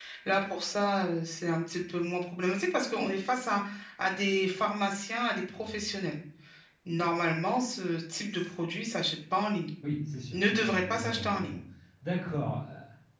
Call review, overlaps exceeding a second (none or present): present